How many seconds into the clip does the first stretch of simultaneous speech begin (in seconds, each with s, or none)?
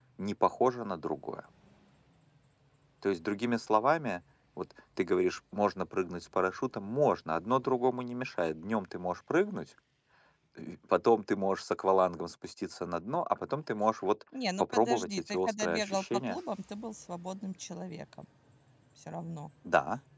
14.6 s